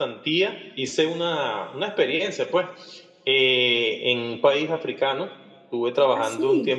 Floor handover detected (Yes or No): No